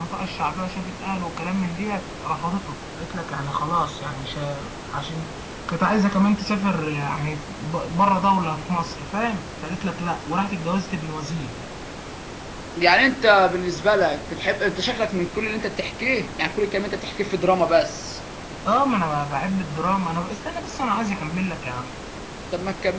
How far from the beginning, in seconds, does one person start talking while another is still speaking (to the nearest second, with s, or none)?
none